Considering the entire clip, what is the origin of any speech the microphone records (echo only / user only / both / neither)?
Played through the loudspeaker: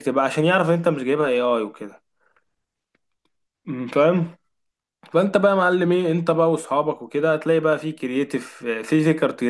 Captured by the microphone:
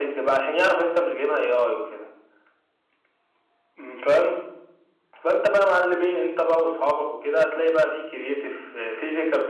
echo only